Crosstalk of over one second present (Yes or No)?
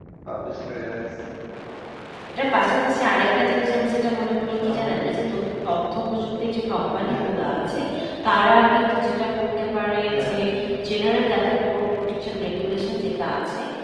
No